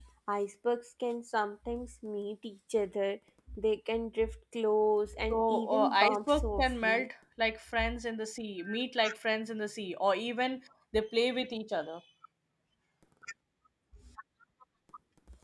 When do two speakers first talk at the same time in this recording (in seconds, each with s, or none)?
5.3 s